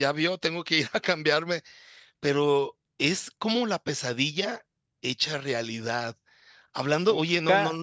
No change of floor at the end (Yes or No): Yes